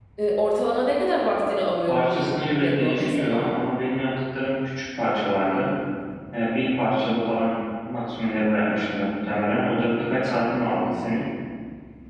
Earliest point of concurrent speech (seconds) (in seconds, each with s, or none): 1.9 s